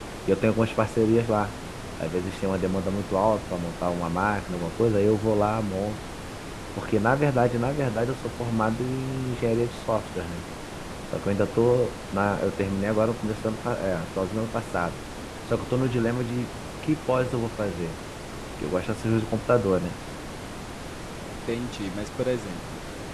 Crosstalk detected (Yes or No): No